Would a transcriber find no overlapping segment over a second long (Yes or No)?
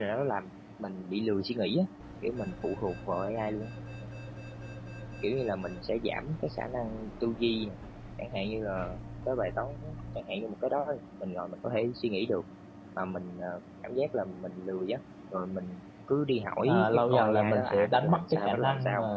No